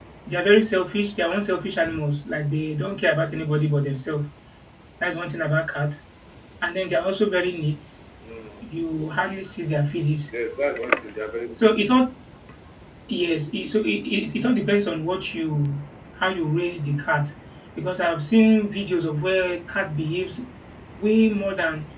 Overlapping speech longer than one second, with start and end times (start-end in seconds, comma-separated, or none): none